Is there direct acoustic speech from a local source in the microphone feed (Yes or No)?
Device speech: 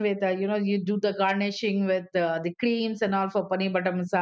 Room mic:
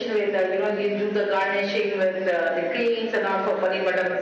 No